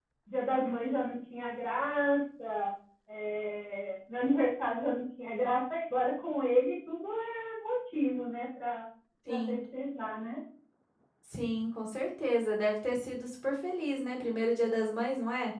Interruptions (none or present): none